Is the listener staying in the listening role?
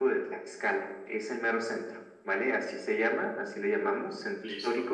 Yes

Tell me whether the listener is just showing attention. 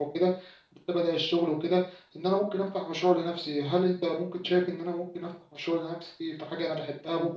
Yes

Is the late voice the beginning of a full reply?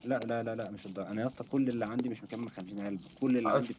No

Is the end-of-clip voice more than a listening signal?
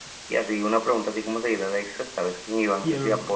Yes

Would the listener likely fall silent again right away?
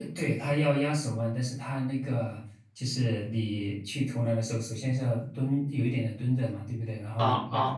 Yes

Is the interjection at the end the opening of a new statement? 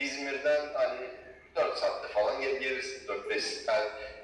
No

